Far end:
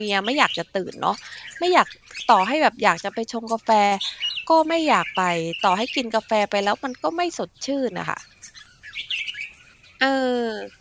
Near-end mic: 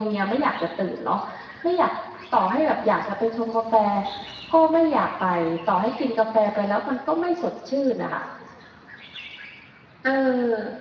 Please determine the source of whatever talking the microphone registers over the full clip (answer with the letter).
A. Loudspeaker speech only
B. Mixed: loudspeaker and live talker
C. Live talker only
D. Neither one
A